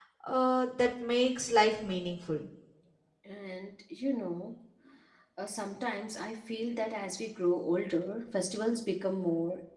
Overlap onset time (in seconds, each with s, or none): none